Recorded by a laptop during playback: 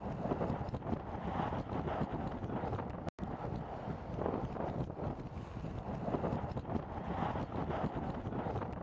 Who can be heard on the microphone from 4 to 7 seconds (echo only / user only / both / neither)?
neither